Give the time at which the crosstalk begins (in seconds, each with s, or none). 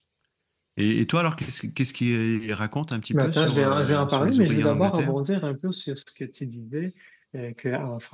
3.1 s